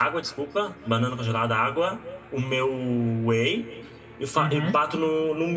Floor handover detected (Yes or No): No